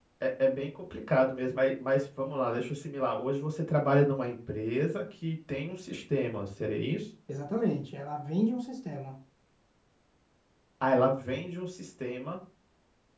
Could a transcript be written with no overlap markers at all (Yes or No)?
Yes